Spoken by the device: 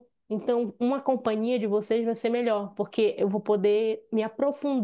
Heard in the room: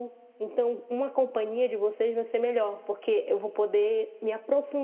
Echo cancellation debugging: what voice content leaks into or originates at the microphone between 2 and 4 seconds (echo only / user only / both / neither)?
echo only